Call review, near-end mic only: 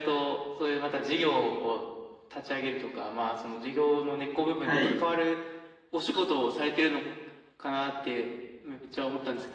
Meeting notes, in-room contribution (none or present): present